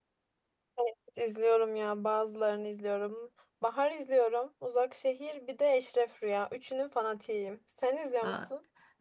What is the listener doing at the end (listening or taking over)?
taking over